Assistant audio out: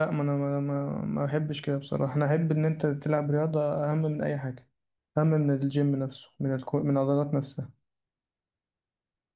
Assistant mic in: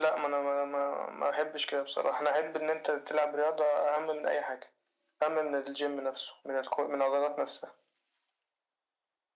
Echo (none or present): present